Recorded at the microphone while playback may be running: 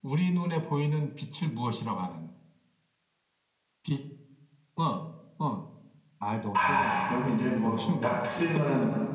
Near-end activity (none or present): present